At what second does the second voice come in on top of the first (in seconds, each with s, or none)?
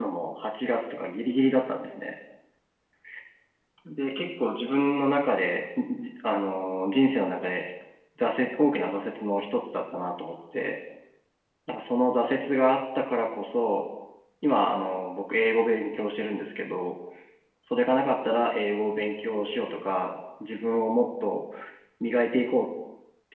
none